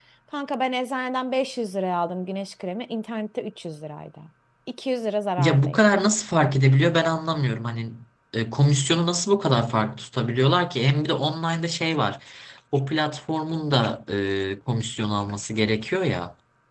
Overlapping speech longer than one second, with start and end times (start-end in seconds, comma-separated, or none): none